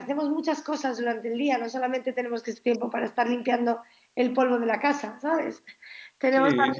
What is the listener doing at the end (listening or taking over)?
listening